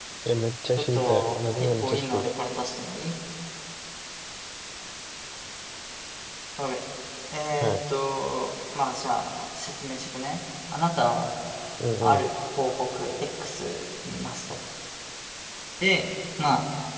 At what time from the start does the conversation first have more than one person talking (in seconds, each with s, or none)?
0.9 s